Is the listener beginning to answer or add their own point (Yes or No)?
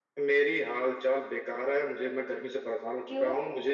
No